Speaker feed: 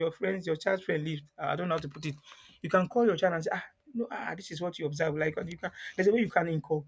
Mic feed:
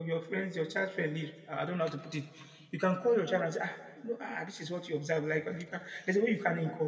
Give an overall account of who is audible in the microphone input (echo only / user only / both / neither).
echo only